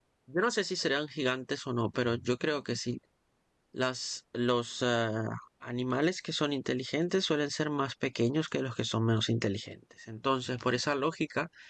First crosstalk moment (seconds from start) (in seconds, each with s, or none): none